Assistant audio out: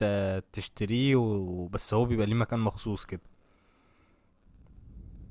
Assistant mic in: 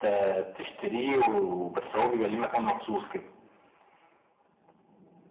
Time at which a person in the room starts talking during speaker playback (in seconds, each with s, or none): none